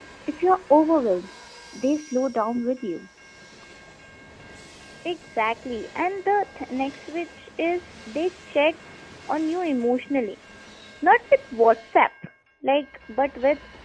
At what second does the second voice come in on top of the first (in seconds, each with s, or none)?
none